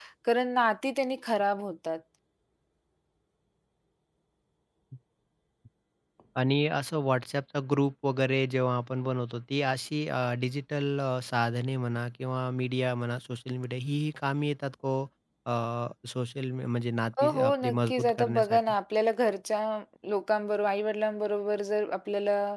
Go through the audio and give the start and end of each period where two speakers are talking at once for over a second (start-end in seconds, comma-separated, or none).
17.2-18.6